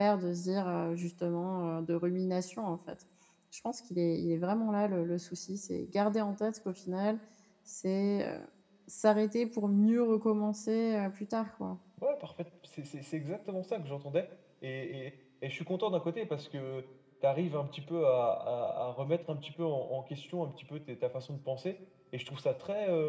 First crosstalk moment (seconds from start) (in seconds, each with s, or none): none